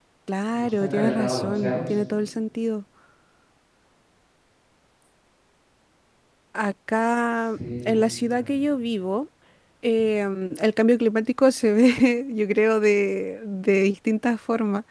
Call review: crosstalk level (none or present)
present